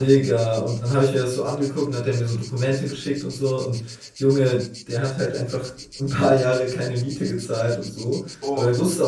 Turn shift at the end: No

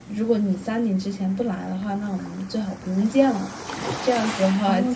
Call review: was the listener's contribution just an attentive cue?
No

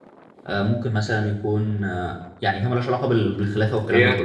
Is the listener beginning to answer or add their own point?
Yes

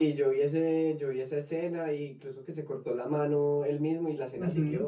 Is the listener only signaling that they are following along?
No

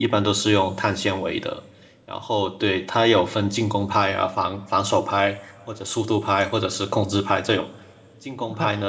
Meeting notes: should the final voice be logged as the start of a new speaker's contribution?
No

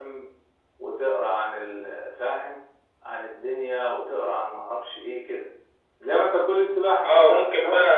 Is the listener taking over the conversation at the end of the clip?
Yes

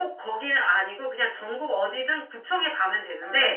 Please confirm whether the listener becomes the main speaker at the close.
No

